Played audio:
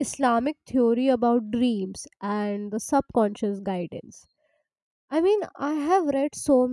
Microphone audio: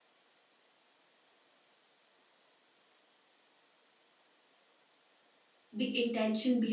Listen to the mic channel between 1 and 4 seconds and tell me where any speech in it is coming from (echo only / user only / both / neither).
neither